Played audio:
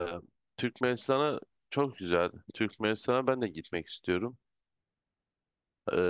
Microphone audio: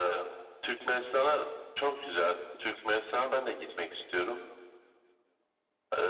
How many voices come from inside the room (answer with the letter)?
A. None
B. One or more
A